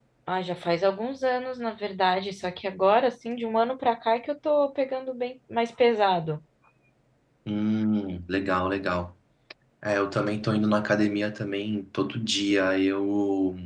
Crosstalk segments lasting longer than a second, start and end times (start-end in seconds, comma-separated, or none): none